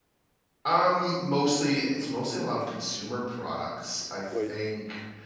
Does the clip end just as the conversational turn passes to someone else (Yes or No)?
No